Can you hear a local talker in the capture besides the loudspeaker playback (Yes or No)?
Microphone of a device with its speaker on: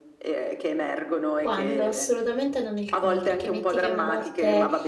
Yes